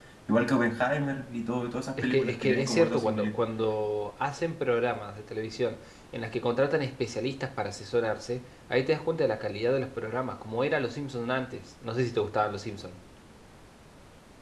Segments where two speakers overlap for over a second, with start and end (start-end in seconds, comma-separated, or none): 2.0-3.3